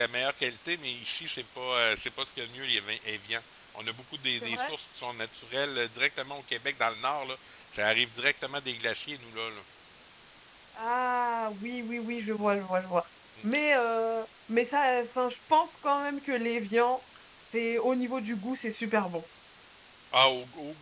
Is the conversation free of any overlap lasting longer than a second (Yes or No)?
Yes